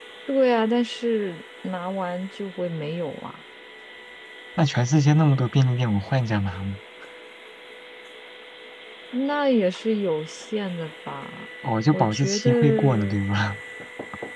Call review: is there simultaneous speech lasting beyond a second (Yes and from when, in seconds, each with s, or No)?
Yes, from 11.9 s